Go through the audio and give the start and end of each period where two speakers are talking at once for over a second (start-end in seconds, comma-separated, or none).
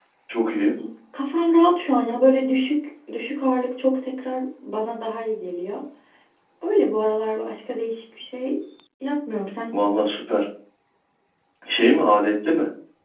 none